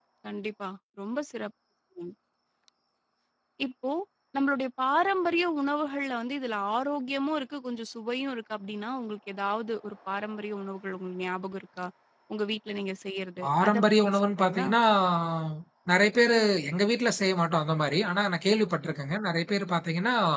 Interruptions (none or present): present